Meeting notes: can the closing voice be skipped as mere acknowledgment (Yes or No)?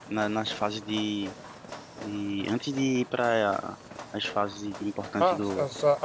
No